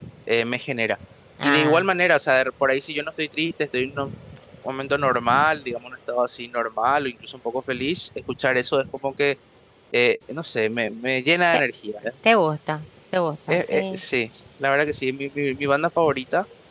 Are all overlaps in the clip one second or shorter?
Yes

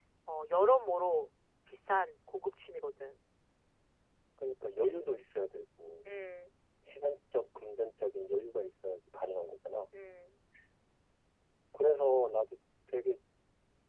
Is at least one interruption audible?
No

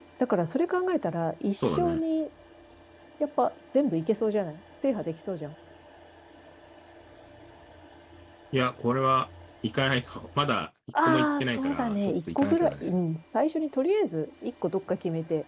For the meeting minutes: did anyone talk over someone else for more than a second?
Yes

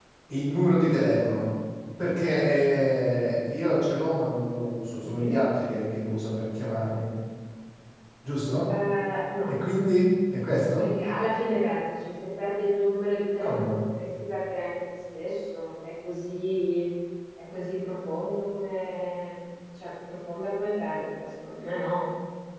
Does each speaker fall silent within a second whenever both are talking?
Yes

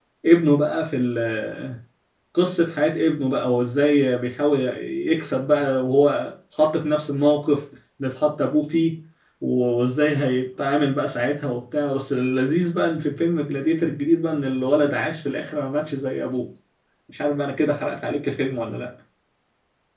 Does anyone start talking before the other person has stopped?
No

